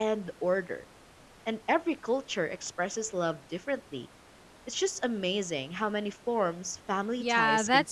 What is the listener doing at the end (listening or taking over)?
taking over